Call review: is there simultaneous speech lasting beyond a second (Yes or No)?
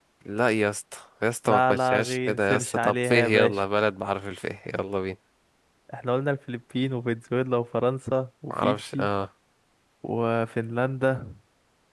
Yes